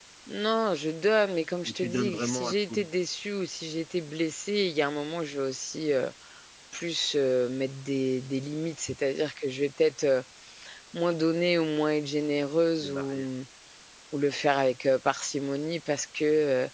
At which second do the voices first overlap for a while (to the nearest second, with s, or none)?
2 s